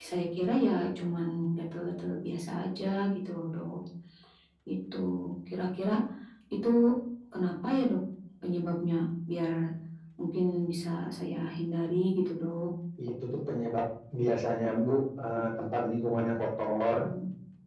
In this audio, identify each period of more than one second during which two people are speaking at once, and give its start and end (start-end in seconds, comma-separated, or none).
none